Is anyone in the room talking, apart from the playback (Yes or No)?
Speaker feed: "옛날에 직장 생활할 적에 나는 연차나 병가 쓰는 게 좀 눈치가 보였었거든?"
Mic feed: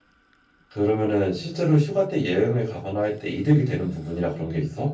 Yes